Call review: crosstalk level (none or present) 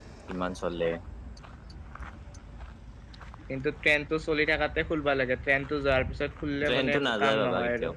present